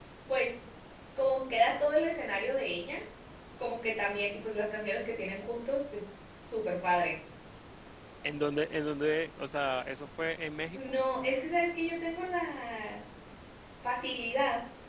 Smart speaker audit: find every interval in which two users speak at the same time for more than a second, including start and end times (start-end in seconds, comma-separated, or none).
none